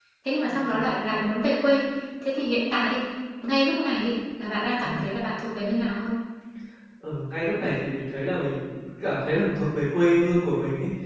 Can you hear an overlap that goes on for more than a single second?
No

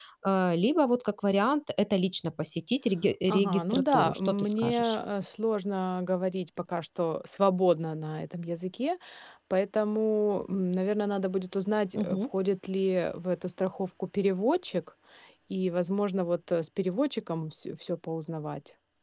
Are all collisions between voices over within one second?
No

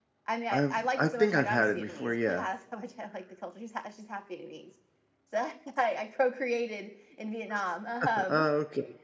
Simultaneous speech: Yes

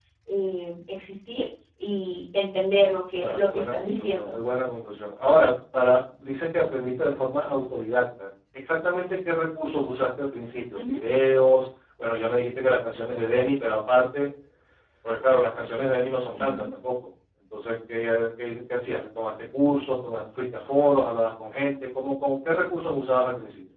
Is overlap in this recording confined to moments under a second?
No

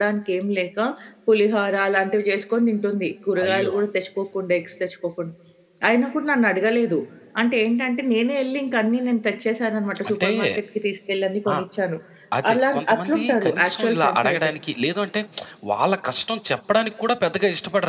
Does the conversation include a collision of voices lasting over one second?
Yes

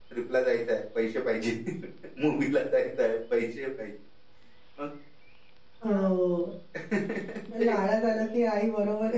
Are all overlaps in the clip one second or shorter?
Yes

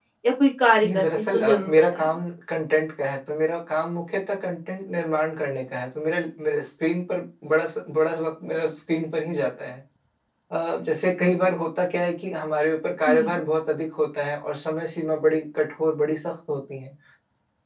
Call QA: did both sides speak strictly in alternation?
No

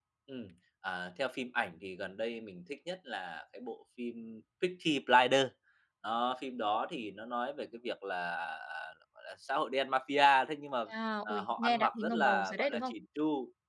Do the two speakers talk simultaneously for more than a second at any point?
Yes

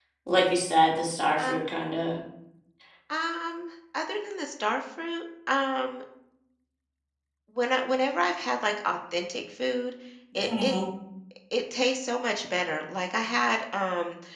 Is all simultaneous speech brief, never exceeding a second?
Yes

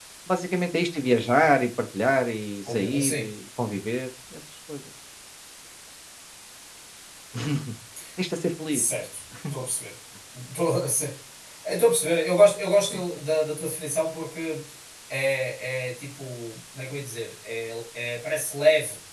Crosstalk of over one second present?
No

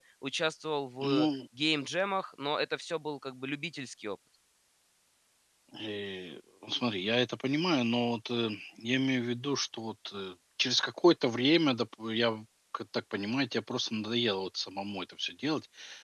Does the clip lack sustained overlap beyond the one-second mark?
Yes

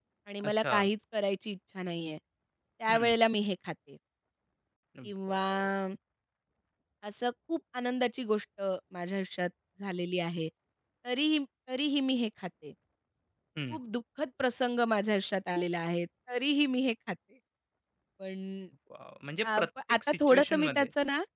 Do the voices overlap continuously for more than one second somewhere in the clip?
Yes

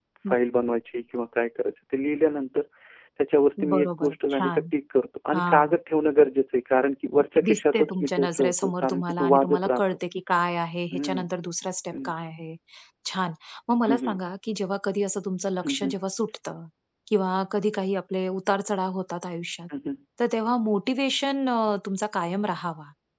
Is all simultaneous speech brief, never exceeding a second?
No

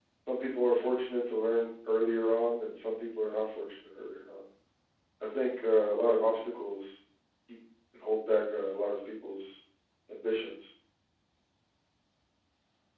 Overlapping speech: No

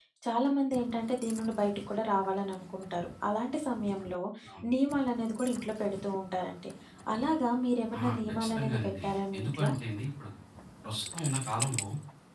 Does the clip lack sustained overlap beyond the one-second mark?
No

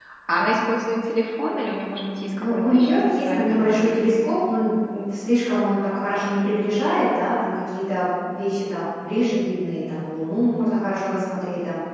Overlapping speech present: Yes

